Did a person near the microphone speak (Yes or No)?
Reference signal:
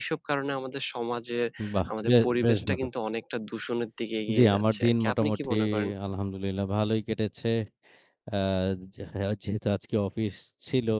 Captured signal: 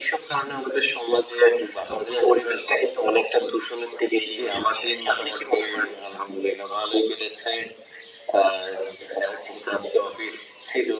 No